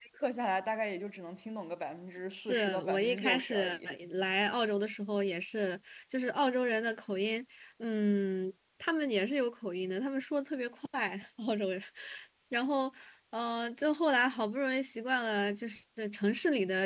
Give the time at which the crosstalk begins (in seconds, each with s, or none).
2.3 s